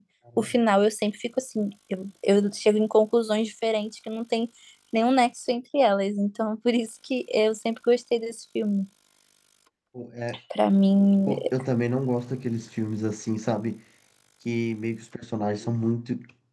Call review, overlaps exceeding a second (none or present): none